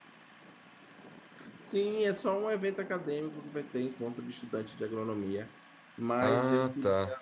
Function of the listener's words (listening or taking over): listening